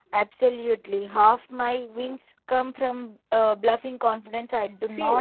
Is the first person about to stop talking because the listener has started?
Yes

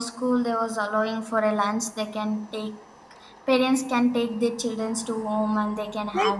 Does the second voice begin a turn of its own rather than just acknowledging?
Yes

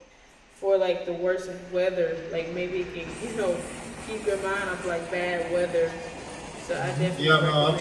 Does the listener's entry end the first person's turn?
Yes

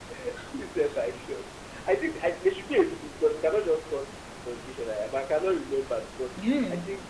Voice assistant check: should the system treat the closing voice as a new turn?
No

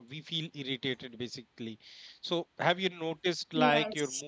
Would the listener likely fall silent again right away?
Yes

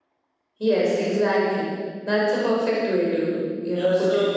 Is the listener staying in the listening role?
No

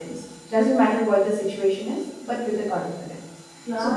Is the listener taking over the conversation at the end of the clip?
Yes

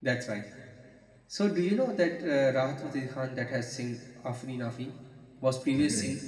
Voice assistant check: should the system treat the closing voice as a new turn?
No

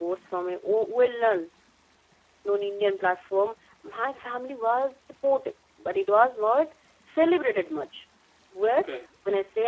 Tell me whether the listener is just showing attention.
Yes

